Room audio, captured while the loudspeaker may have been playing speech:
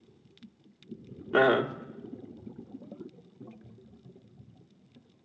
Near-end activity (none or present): present